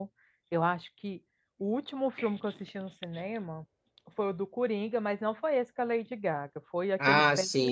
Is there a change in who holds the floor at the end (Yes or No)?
Yes